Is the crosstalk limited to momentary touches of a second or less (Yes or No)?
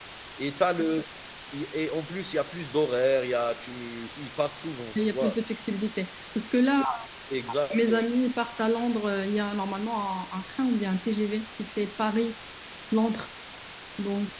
Yes